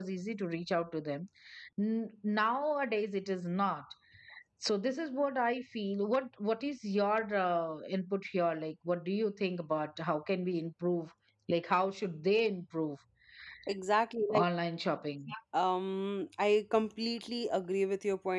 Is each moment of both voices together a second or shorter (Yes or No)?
Yes